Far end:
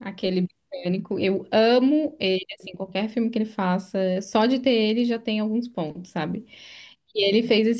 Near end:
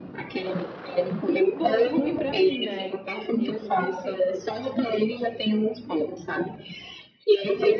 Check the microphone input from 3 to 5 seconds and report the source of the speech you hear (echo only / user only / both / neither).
both